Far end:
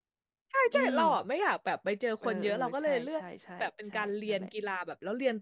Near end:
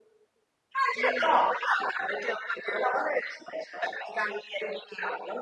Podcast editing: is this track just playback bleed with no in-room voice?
Yes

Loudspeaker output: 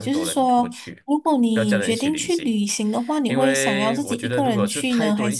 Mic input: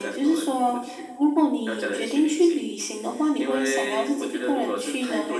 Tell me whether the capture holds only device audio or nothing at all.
Yes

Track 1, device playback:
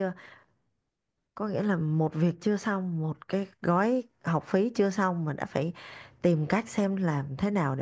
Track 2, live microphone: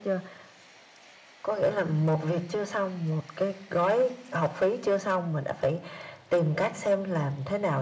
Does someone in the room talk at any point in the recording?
No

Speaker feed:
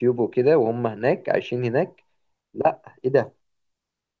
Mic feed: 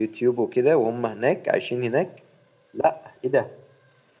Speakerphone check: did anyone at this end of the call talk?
No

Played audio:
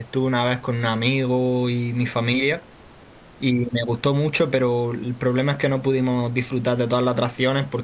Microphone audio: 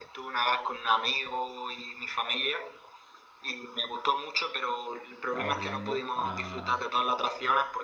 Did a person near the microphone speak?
Yes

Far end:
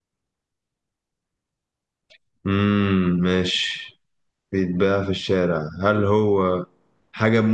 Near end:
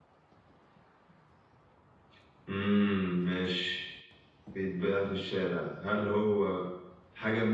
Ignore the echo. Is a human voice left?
No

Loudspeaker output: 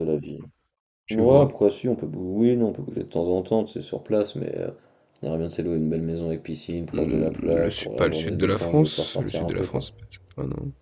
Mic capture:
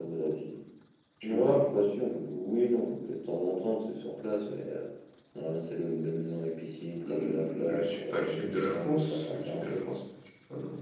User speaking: No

